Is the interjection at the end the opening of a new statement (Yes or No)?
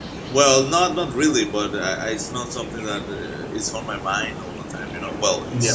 Yes